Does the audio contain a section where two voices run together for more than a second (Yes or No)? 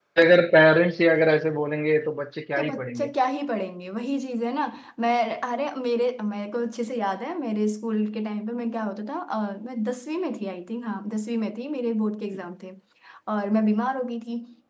No